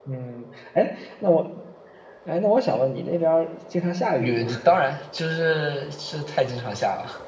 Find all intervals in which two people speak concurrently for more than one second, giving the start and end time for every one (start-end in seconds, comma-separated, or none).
none